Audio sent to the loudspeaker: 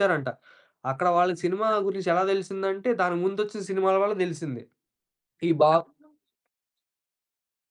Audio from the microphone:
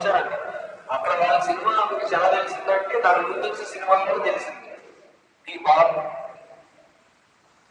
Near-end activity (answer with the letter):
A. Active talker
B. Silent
B